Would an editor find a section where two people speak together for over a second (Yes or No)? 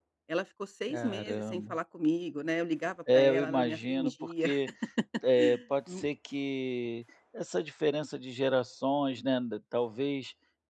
Yes